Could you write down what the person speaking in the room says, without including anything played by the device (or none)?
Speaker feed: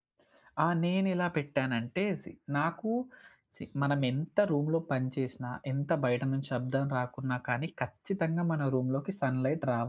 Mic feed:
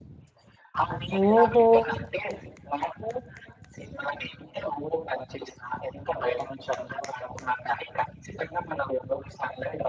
ఓహో!